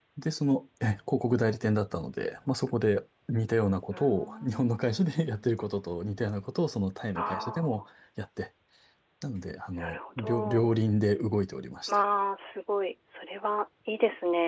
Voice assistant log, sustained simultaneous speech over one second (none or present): present